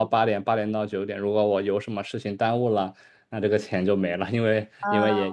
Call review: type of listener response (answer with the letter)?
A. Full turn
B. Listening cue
B